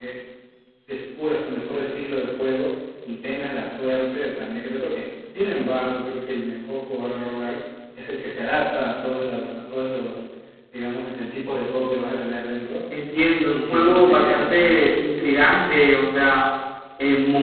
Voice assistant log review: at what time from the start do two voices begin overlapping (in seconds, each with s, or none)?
13.4 s